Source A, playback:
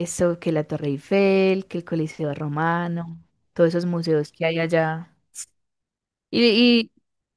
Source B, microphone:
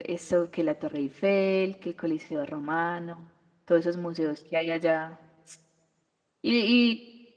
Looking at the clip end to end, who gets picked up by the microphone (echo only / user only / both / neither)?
echo only